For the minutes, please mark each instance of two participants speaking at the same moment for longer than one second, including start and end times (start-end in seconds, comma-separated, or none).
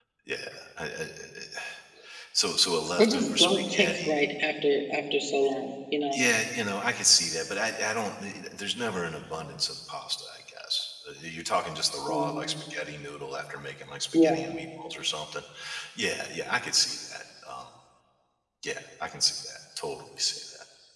3.0-4.2